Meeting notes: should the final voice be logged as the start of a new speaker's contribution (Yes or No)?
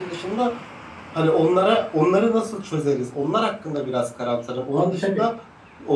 No